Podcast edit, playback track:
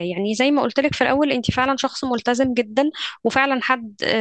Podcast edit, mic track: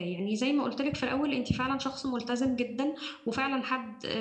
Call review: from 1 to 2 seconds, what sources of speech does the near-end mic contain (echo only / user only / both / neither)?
echo only